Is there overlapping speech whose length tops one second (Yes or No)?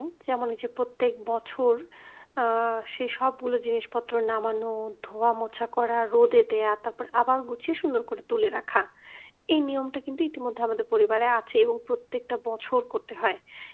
No